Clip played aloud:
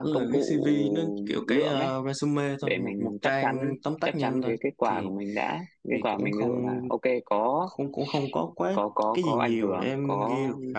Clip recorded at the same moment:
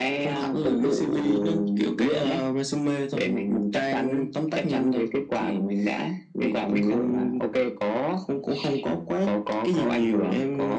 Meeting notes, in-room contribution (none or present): none